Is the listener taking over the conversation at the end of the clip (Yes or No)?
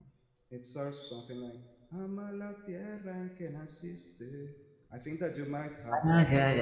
Yes